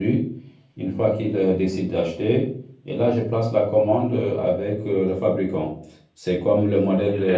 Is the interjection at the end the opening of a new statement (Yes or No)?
No